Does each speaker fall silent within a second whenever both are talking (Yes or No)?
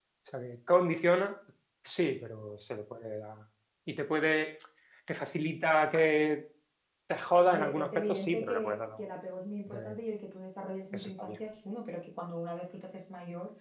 No